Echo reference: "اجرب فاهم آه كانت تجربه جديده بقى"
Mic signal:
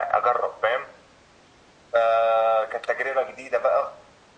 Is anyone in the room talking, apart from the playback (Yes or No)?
No